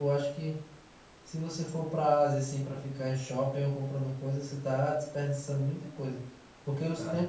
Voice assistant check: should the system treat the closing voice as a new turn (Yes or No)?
No